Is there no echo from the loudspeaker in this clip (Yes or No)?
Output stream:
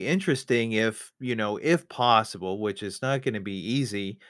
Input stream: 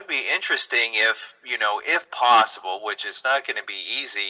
No